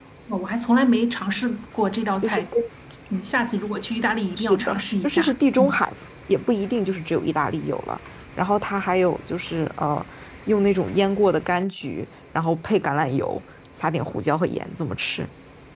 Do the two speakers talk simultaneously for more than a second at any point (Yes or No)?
Yes